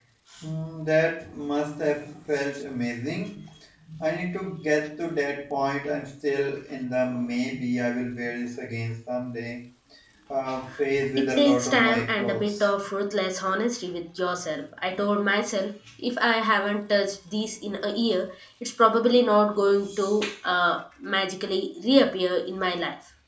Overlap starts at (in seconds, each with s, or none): 11.2 s